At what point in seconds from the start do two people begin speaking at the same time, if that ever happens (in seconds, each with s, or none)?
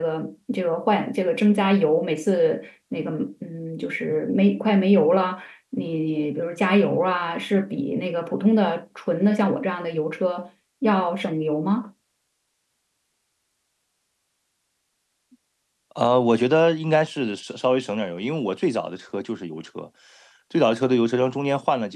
none